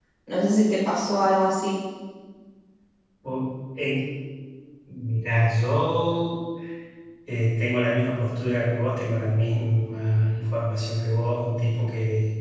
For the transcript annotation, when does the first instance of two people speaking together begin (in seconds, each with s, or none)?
none